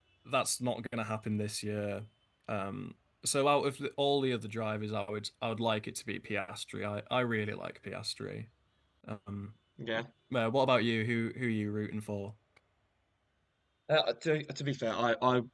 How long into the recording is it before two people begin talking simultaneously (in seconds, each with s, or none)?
none